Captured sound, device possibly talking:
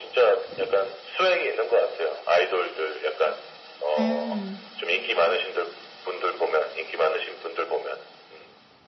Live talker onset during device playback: 4.0 s

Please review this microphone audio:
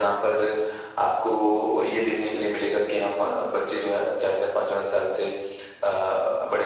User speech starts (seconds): none

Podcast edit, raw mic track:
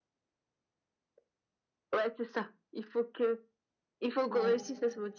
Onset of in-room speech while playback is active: 4.3 s

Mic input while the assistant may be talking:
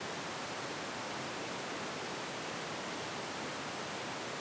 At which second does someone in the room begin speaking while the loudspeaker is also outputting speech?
none

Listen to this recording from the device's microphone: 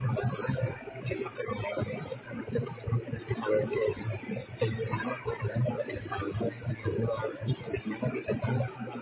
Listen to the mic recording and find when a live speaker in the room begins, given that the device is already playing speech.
none

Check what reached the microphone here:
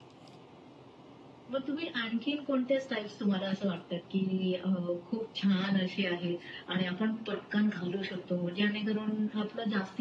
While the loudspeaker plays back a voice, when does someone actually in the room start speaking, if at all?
none

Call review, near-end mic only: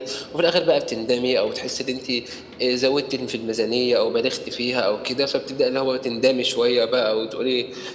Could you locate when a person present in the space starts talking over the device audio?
none

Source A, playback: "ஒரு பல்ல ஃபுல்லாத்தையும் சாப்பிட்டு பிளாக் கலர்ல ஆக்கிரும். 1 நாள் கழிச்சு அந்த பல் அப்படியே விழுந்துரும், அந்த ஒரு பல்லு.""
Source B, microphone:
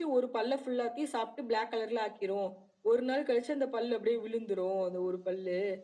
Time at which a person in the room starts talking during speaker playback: none

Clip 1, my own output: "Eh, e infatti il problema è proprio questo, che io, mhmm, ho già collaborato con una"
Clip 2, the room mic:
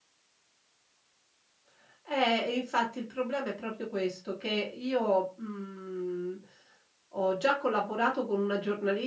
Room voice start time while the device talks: none

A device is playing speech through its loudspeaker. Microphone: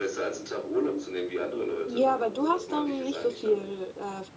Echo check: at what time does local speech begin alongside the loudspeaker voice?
1.9 s

